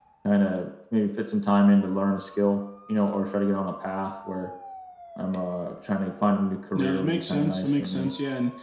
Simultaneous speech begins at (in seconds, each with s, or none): 6.7 s